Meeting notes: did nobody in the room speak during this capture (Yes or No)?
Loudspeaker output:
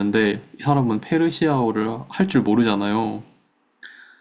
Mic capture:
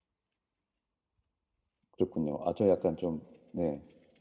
No